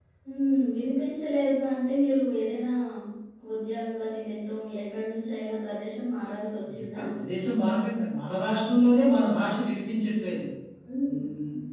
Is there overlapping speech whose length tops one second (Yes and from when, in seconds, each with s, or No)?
No